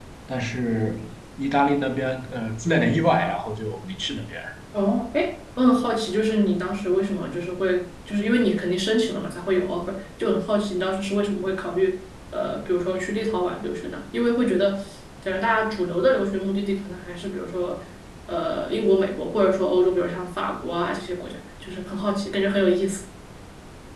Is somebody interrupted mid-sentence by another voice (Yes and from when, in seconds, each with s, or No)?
No